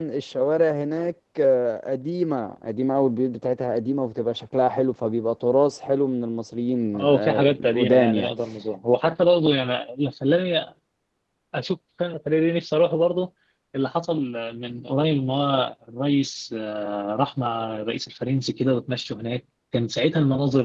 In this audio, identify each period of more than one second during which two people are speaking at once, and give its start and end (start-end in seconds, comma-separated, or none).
6.9-8.3